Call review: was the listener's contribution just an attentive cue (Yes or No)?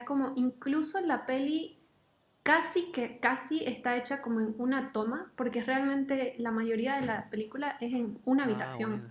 Yes